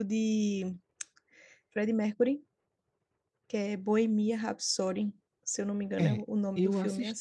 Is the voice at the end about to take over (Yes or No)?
Yes